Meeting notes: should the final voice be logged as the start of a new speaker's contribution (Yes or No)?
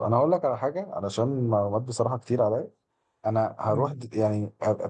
No